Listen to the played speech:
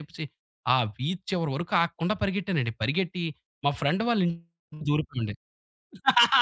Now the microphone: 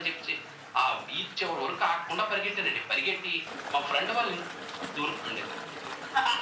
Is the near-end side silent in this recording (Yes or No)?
Yes